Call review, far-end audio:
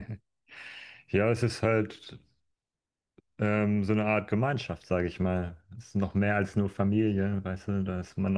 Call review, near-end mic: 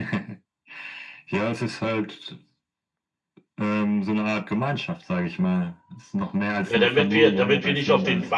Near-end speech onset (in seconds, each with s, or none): 6.7 s